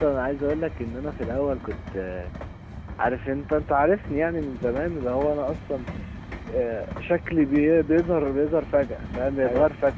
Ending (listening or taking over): listening